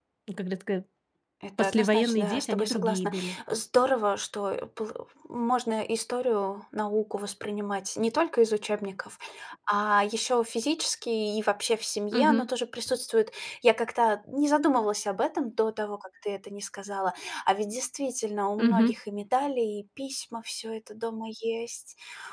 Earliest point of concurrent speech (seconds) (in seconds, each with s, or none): 1.6 s